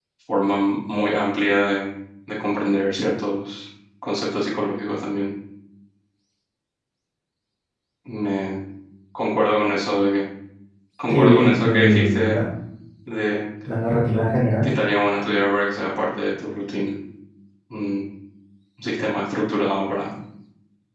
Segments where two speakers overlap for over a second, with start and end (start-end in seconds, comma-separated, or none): 11.1-12.3